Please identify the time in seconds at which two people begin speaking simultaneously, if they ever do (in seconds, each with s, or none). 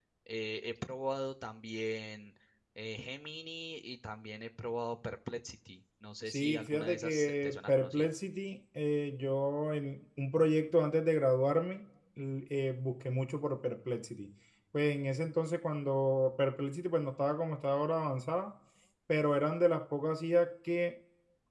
6.3 s